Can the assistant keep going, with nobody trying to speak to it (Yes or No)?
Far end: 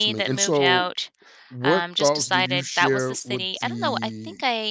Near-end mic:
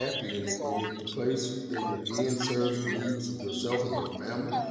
No